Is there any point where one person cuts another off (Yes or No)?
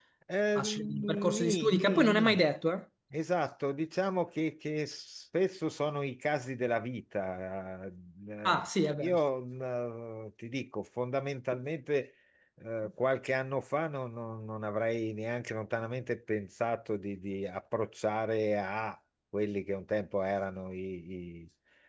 Yes